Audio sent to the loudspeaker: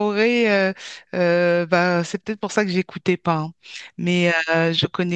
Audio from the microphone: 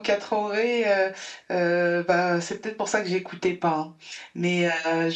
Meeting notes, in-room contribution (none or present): none